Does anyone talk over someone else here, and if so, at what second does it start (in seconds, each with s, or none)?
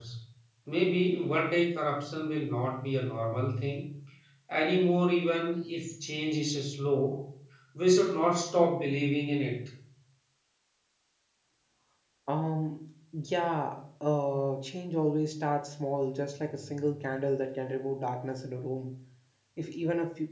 none